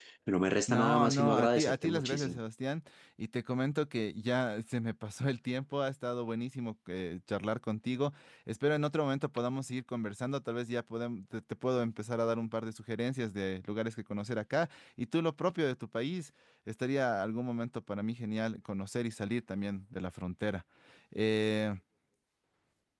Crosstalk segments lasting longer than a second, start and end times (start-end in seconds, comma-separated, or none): 0.7-2.4